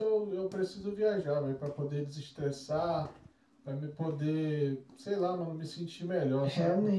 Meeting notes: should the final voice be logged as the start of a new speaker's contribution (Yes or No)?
Yes